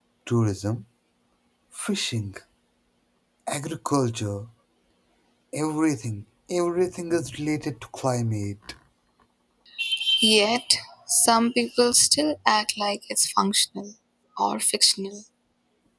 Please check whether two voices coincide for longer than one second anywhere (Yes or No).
No